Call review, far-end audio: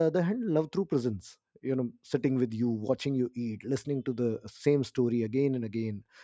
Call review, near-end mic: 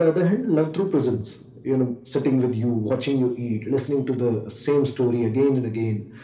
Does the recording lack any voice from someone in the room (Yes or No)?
Yes